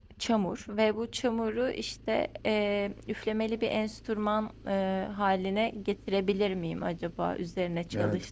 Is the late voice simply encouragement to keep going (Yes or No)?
No